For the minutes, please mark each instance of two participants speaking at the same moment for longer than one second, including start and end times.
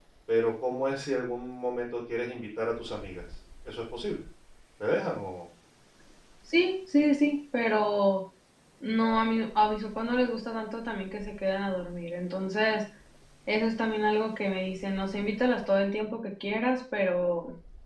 none

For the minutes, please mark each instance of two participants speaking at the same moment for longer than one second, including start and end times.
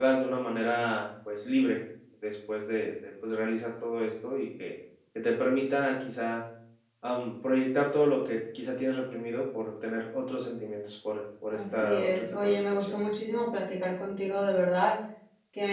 11.5-13.0

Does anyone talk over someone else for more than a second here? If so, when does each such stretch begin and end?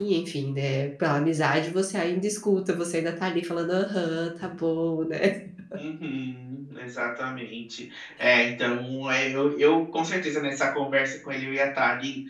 none

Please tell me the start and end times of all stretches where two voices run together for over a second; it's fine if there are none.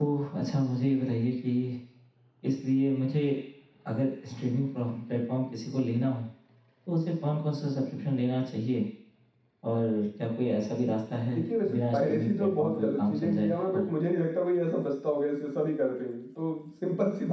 11.6-13.9

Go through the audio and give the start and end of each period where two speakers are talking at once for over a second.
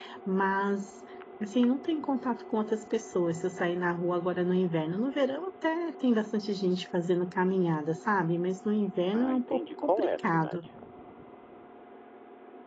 9.1-10.6

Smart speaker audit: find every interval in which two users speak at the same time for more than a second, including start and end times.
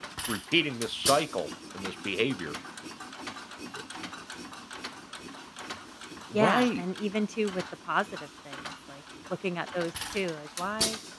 none

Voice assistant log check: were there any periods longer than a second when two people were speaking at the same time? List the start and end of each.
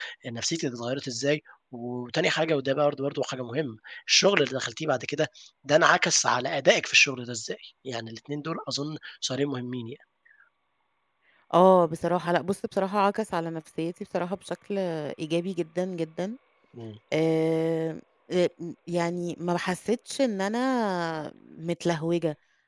none

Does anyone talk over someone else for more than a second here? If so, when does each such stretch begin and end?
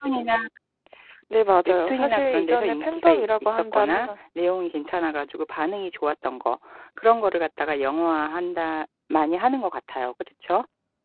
1.7-4.1

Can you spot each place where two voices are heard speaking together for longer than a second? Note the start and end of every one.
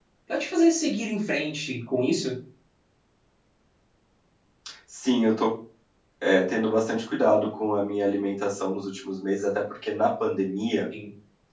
none

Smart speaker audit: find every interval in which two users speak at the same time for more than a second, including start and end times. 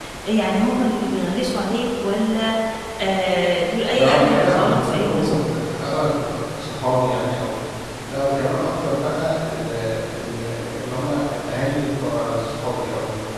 3.9-5.4

